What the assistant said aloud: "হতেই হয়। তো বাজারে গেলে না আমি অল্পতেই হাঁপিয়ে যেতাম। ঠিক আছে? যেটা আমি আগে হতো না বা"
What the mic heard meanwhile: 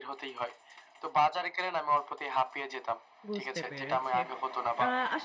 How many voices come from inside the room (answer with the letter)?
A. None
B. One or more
B